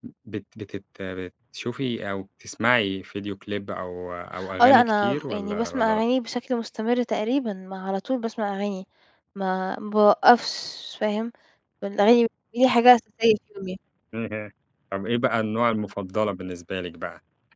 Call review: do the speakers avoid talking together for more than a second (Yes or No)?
No